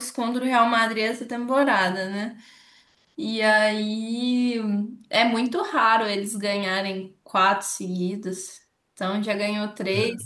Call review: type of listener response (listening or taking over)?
listening